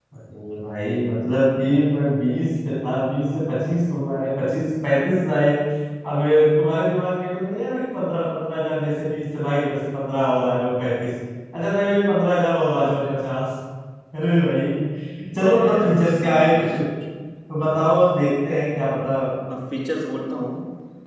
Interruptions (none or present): present